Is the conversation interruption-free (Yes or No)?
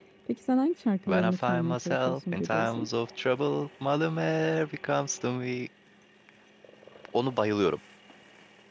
No